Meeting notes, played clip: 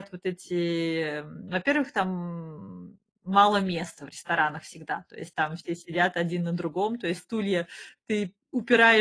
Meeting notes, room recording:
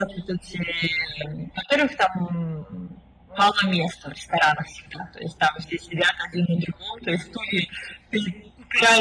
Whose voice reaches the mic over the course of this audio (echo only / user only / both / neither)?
echo only